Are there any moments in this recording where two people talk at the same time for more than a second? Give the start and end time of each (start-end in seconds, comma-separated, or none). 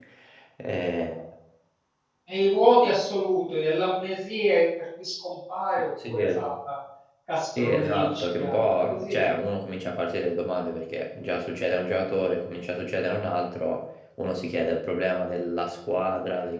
7.6-9.2